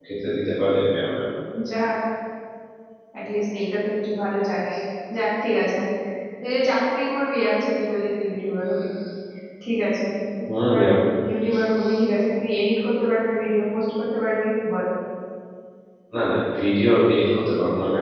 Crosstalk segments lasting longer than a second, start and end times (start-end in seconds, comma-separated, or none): none